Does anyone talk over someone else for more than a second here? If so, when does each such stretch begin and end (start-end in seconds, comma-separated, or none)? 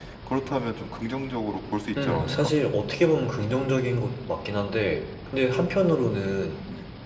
none